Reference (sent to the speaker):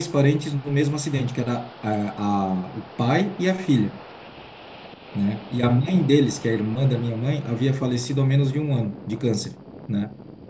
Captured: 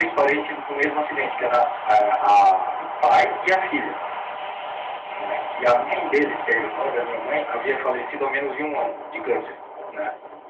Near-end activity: none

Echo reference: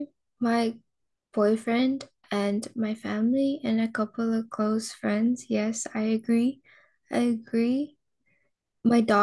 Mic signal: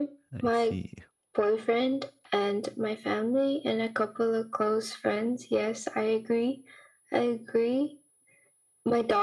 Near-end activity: present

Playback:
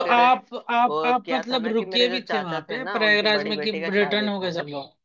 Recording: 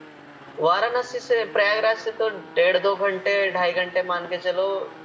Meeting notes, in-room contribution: present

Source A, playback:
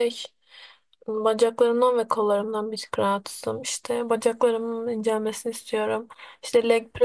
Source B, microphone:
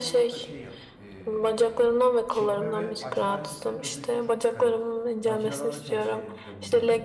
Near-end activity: present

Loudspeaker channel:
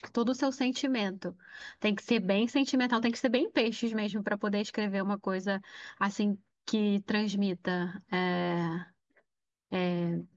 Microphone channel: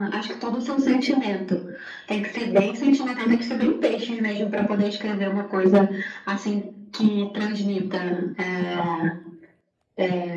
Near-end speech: none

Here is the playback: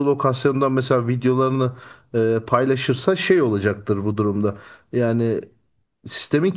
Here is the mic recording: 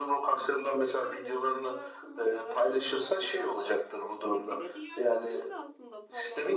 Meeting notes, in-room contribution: present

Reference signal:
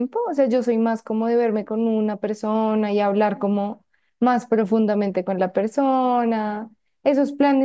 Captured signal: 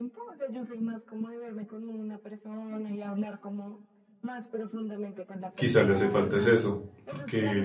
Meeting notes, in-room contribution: present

